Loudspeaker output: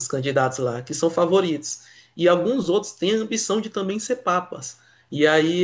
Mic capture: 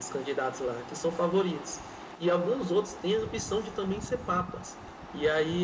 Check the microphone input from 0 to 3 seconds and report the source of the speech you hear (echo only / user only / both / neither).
echo only